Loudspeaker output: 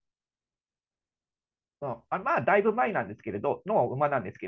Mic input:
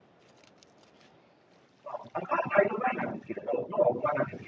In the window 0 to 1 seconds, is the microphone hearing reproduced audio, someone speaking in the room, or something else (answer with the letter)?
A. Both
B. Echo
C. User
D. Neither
D